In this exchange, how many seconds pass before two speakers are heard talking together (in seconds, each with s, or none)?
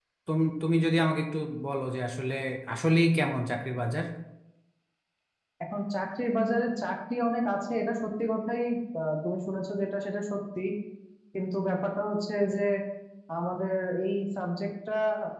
none